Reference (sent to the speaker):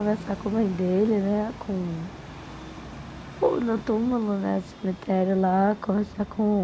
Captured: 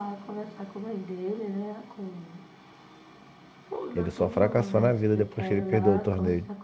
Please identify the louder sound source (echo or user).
user